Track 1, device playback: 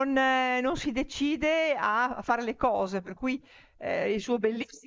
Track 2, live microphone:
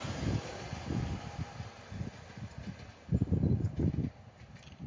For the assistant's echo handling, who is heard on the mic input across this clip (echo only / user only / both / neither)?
neither